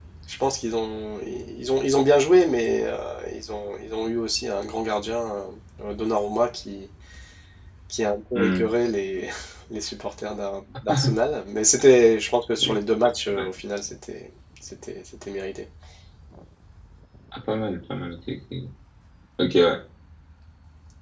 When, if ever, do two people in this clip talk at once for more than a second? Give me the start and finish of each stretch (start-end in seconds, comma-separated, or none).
none